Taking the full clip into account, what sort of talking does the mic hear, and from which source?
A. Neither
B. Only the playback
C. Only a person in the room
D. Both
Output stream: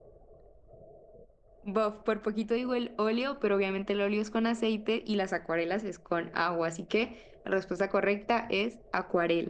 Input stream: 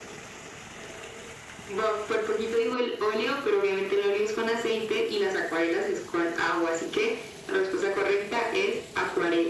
B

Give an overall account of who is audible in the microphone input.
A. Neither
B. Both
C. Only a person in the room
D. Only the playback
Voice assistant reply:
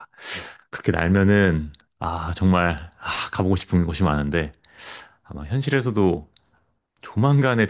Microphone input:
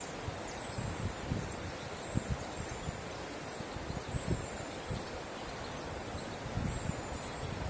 A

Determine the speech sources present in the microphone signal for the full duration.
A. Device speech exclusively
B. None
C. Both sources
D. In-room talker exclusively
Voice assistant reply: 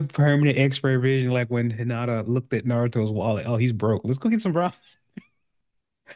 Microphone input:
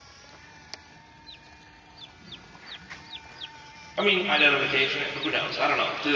D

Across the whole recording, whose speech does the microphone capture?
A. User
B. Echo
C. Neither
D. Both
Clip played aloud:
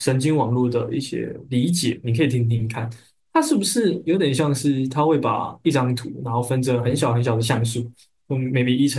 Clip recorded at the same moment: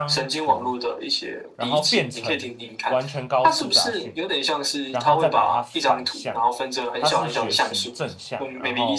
D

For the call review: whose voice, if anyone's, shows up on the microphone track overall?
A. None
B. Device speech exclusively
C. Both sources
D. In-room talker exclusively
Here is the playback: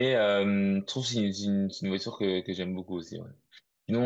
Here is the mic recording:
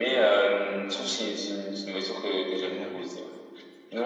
C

